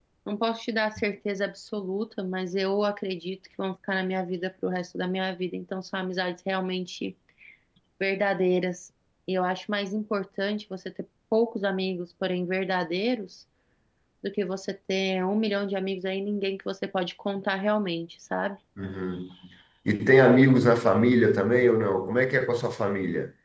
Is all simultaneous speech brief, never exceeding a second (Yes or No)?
Yes